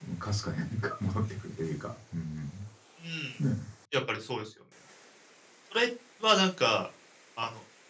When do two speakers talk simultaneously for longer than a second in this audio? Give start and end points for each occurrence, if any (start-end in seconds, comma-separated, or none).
none